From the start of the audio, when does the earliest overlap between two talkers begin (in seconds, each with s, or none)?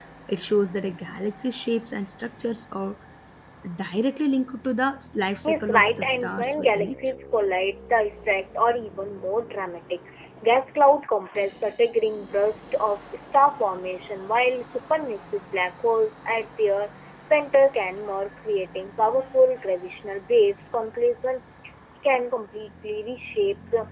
5.4 s